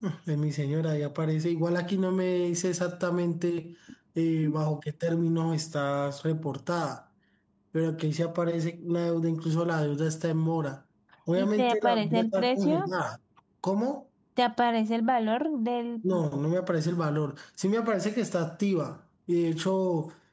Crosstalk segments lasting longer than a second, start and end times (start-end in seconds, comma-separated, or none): 11.4-12.9